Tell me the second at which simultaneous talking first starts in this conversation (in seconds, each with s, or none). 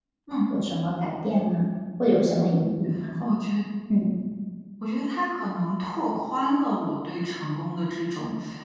none